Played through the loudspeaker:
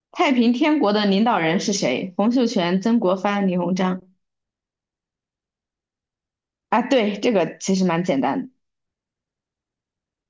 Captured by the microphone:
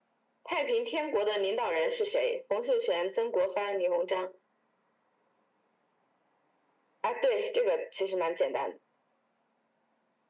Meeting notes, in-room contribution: none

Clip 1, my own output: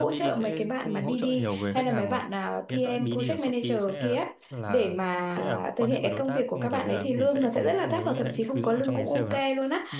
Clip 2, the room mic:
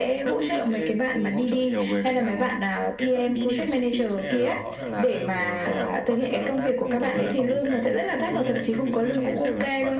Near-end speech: present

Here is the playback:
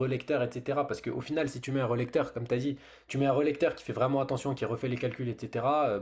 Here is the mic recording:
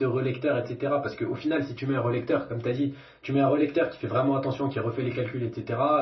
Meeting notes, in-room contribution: none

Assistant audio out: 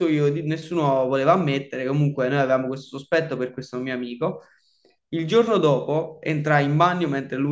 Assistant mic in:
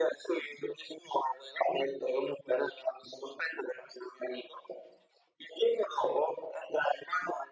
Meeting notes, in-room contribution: none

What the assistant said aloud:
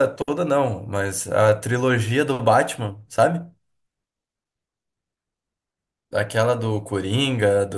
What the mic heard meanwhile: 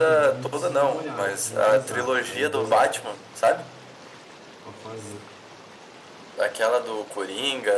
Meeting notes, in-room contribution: present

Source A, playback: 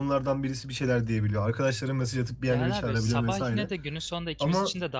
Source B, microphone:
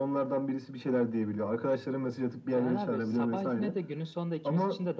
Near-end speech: none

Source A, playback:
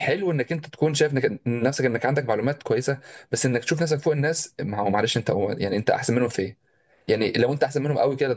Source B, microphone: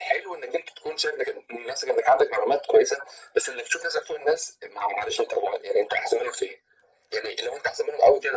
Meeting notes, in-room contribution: none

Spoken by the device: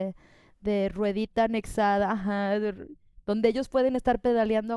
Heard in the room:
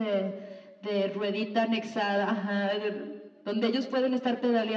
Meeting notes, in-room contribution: none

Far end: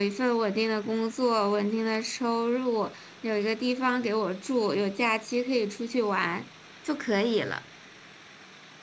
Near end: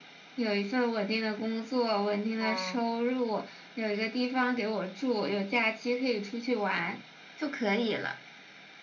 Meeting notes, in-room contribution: present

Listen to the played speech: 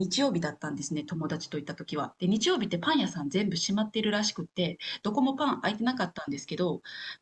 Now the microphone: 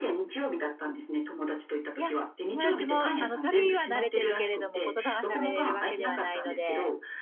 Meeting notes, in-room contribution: present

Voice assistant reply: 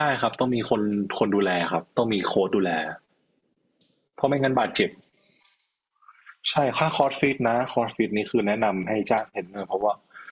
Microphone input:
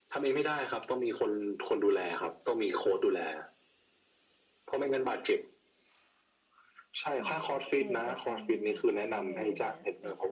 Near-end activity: present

